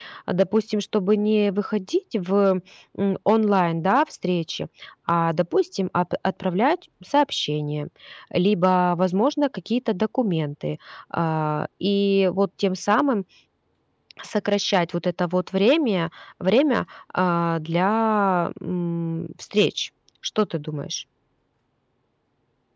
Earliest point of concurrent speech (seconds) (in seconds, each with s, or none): none